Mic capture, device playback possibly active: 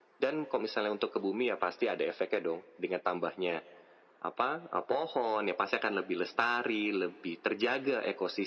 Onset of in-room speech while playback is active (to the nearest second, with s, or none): none